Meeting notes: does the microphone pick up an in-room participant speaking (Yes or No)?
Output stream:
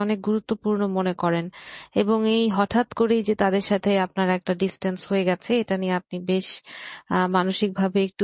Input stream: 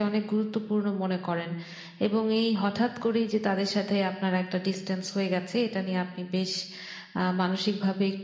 No